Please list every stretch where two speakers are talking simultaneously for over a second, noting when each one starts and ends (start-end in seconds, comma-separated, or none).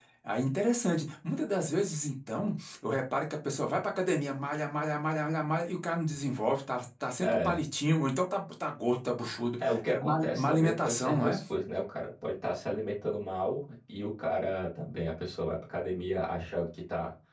9.6-11.4